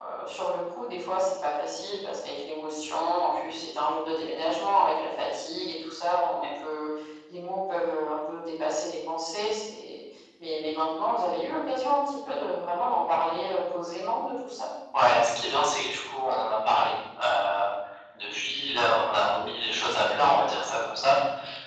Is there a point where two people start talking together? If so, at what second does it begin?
none

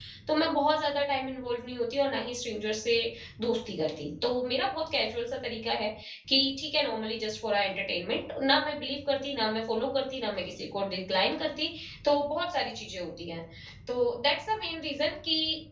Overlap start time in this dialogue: none

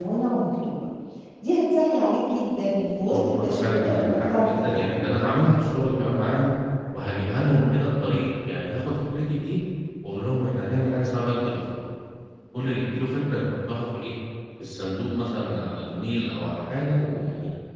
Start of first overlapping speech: 3.1 s

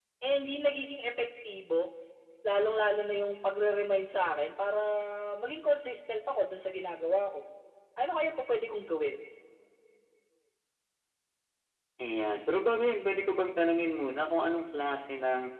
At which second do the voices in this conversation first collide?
none

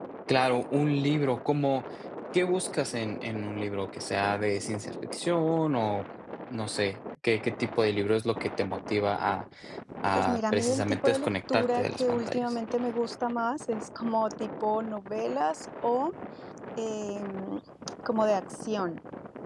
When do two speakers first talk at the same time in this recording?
10.2 s

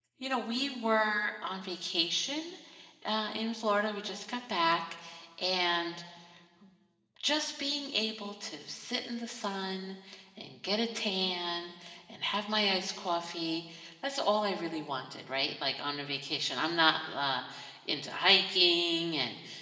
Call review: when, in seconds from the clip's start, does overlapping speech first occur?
none

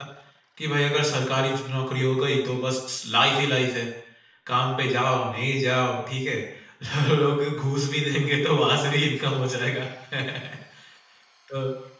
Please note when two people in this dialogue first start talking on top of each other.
none

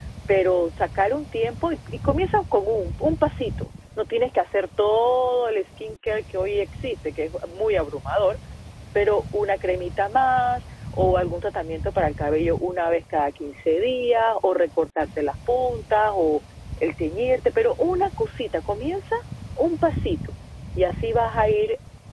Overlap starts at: none

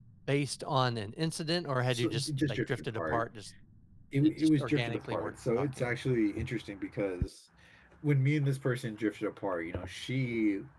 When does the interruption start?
1.9 s

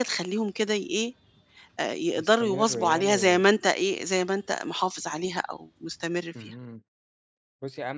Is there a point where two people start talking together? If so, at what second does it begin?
2.2 s

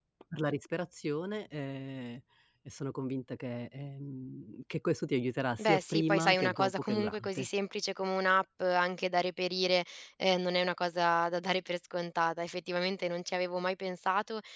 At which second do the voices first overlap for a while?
5.6 s

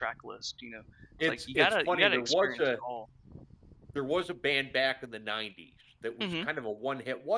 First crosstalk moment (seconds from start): 1.2 s

